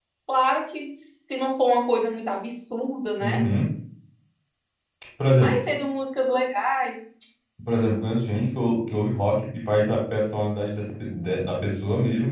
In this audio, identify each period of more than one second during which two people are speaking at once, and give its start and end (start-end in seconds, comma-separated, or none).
none